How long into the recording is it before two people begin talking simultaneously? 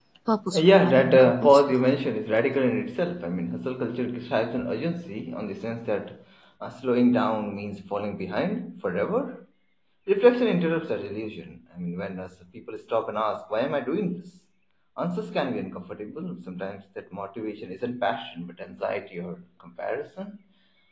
0.6 s

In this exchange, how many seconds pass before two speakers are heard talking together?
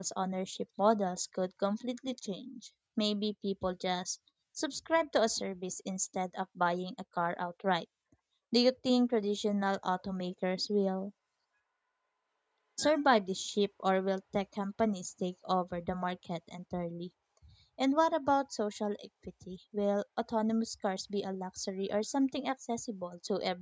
none

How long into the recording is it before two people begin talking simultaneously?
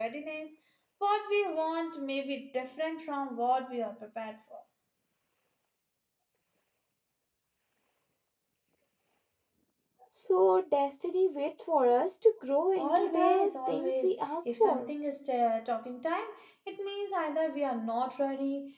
12.8 s

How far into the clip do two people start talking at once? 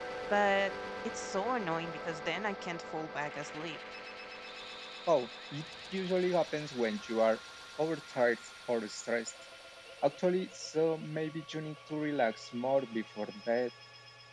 none

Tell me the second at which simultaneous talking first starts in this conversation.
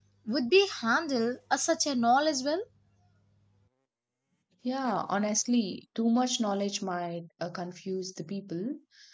none

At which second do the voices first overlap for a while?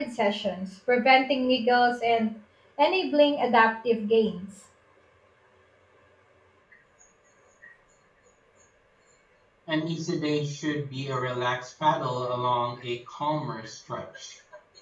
none

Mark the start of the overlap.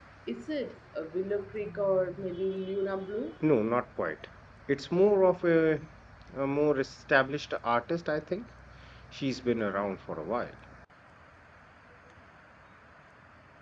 none

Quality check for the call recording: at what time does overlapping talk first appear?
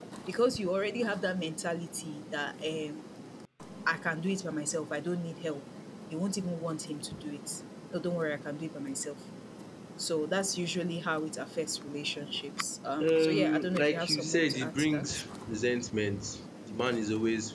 13.0 s

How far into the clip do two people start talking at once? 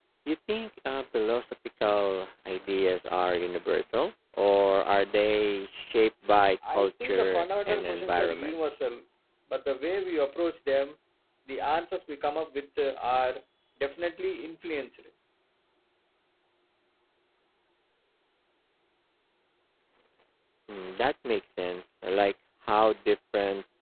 6.6 s

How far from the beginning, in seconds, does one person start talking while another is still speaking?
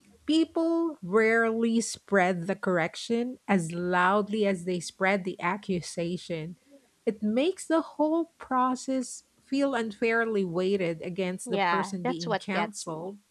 11.5 s

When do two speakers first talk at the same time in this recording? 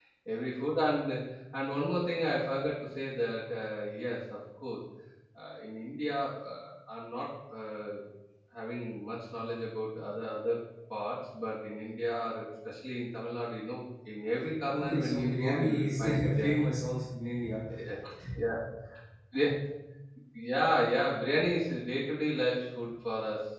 14.7 s

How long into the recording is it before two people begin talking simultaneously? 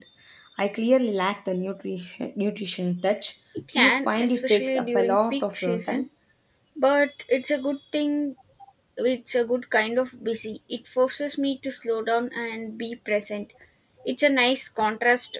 3.7 s

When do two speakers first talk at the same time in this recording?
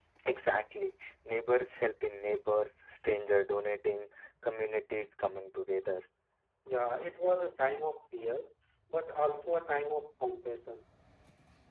none

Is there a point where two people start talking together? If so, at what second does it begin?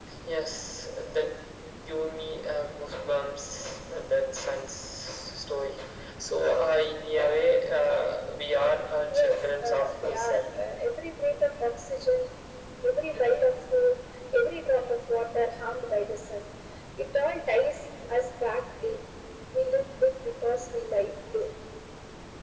9.1 s

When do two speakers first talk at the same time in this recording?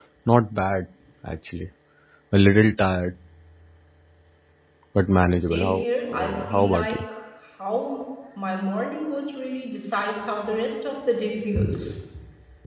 5.5 s

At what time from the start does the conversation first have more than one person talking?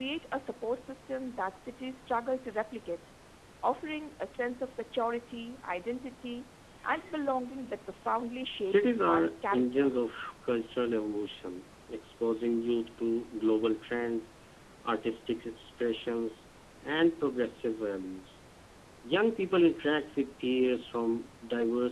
8.6 s

